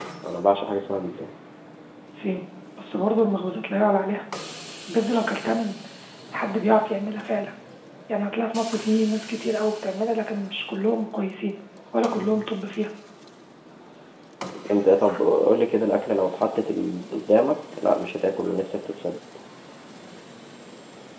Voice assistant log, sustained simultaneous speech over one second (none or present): none